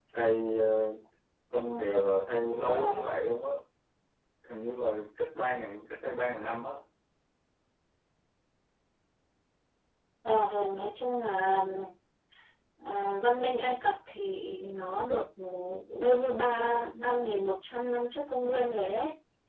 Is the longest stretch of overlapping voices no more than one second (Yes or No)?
Yes